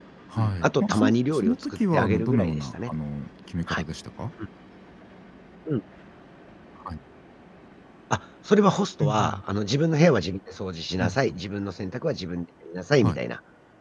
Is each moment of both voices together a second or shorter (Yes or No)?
No